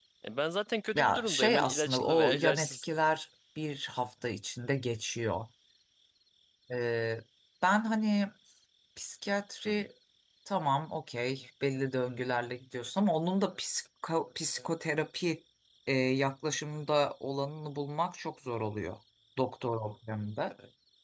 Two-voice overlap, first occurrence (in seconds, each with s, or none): 0.9 s